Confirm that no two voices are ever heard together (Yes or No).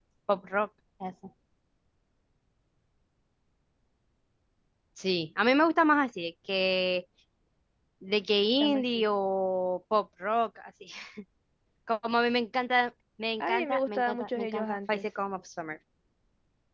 No